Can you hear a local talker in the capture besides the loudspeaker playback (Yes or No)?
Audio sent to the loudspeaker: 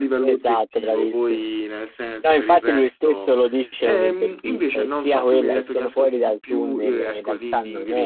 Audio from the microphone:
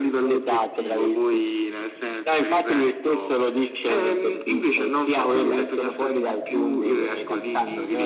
No